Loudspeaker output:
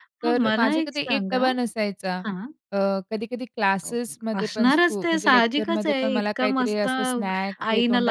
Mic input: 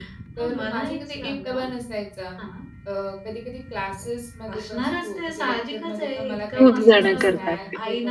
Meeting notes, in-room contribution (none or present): present